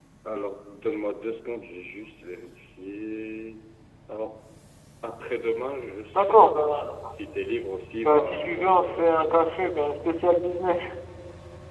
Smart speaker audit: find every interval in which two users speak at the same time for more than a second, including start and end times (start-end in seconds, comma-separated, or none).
8.0-9.7